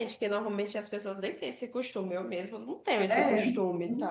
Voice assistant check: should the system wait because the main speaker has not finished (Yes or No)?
No